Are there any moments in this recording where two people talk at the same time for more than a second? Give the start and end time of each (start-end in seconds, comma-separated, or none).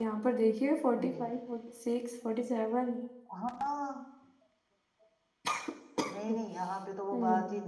none